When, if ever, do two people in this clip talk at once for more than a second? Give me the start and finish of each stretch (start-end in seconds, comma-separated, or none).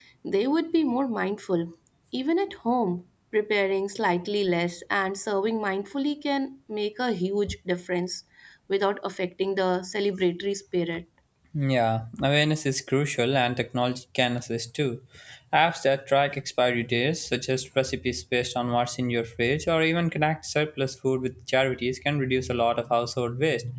none